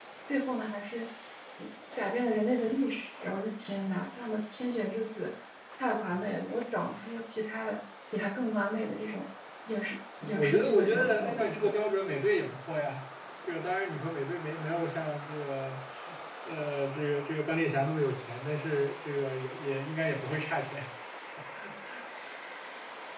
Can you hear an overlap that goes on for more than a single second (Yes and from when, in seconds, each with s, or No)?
Yes, from 10.2 s